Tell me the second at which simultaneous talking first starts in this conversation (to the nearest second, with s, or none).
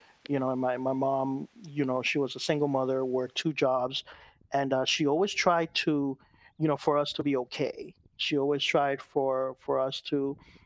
none